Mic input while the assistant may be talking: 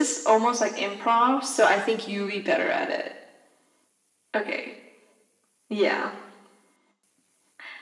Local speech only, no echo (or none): none